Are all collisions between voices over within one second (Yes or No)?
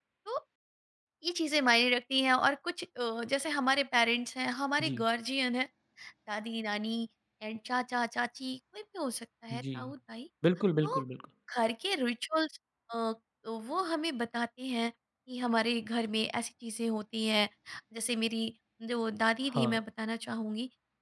Yes